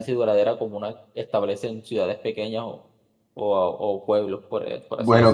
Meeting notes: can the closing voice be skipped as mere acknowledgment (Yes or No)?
No